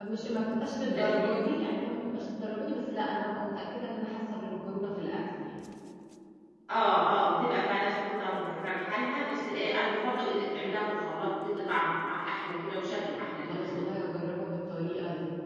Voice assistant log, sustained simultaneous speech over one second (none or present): none